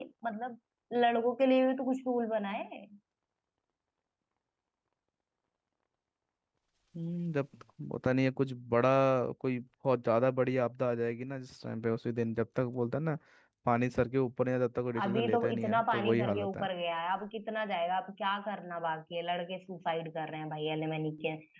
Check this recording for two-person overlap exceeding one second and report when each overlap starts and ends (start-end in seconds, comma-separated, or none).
15.0-16.6